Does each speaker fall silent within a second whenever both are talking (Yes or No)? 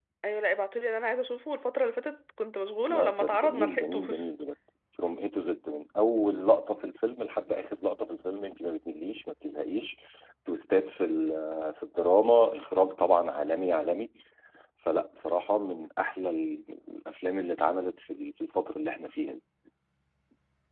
No